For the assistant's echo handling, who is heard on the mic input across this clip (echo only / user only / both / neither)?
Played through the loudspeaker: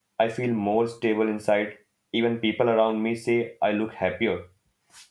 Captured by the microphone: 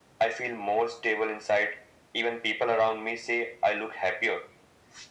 echo only